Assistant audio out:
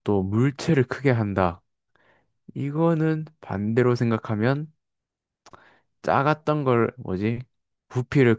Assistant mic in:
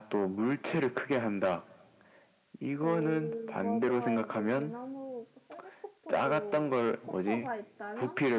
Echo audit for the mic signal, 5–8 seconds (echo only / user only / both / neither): both